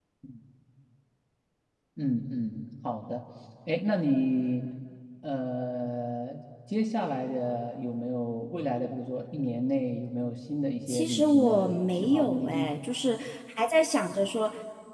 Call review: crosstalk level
present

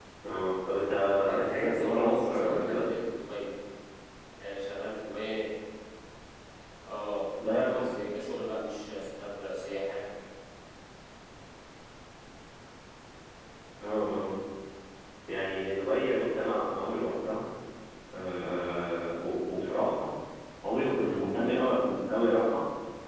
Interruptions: present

